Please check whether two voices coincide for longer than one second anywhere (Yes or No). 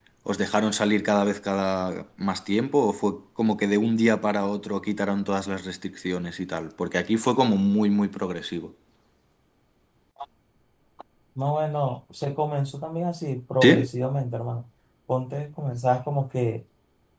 No